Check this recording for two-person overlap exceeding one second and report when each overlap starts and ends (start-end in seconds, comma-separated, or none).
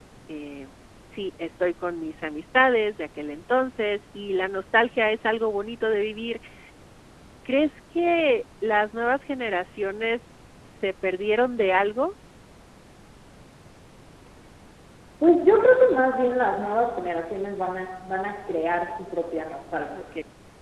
none